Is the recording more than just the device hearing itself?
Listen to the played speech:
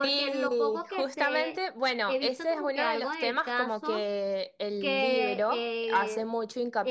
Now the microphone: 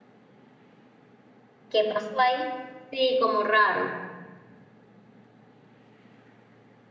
Yes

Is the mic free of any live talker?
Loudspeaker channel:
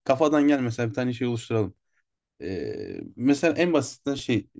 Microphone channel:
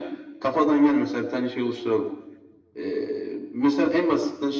Yes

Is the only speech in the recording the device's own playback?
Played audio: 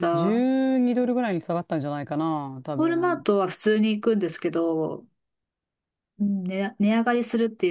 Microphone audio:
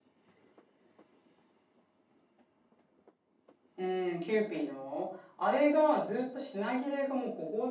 No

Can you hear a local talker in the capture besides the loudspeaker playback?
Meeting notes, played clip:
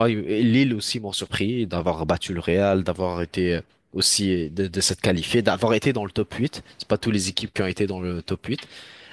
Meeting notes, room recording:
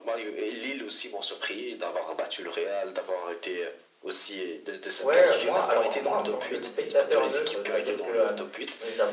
Yes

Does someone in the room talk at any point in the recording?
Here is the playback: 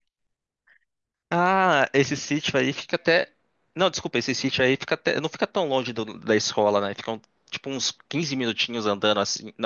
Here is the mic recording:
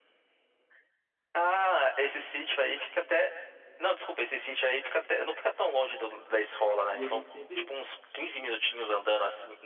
Yes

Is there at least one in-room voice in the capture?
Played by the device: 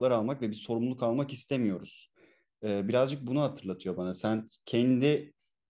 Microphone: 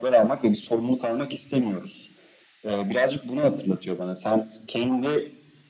No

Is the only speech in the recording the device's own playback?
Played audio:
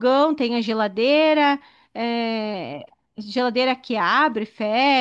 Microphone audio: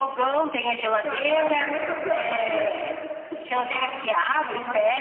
No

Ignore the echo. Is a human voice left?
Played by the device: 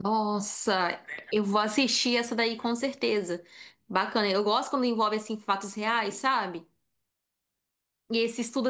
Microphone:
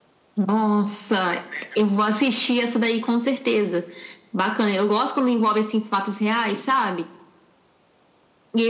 No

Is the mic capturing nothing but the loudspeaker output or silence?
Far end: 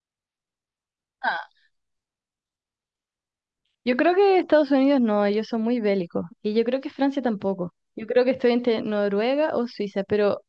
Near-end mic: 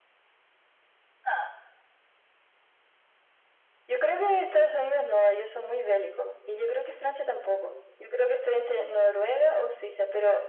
Yes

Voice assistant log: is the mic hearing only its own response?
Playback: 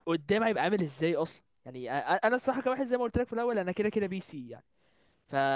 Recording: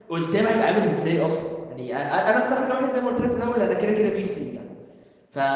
Yes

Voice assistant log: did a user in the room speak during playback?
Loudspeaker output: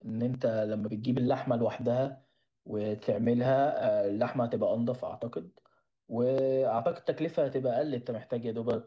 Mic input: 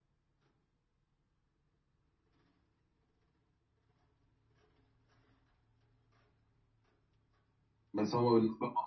Yes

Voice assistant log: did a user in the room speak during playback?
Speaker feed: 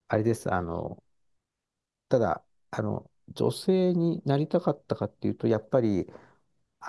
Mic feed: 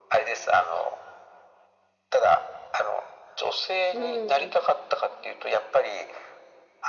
Yes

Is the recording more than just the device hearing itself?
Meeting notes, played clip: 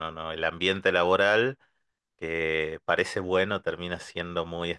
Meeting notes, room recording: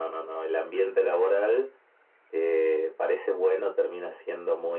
No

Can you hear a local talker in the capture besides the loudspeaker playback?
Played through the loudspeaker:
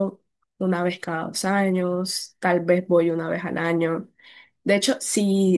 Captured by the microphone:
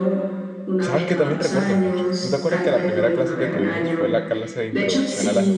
Yes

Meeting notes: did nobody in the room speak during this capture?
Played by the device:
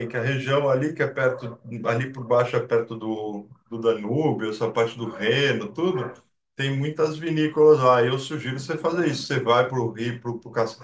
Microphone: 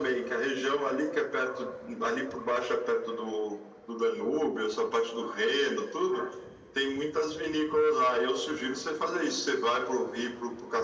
Yes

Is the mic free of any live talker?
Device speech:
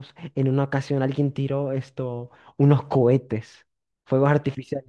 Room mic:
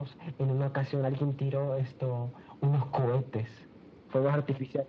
Yes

